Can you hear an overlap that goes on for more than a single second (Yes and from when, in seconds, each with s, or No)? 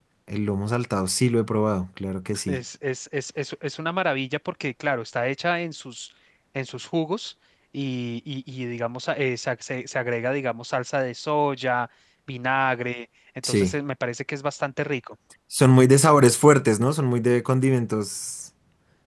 No